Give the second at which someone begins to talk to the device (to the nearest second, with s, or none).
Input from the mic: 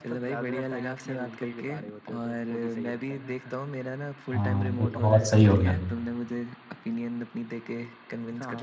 4 s